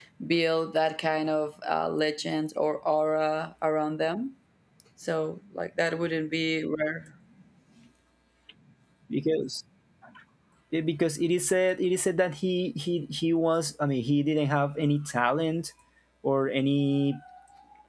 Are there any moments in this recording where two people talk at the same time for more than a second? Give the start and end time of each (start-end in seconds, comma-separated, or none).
none